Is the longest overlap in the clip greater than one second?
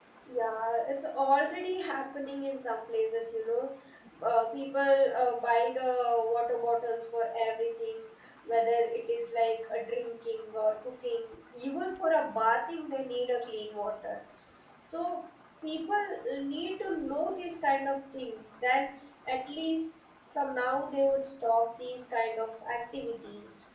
No

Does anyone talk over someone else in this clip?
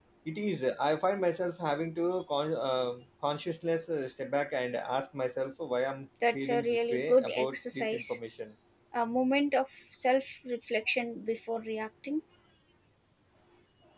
Yes, from 6.2 s

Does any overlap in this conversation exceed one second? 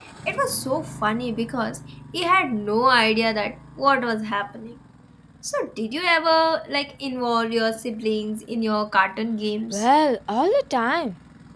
No

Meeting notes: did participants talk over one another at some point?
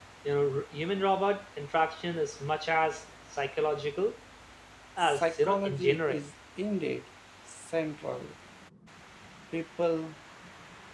Yes, from 5.0 s

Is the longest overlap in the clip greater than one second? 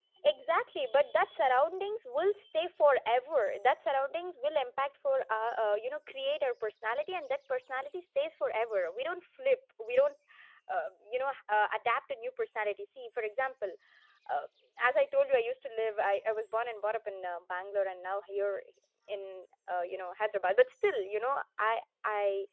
No

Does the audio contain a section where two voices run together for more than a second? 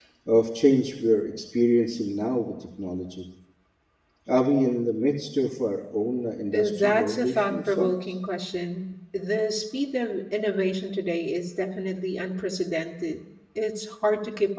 Yes, from 6.5 s

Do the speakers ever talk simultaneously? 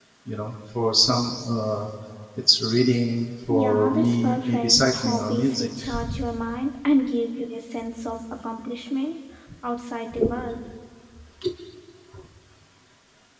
Yes, from 3.5 s

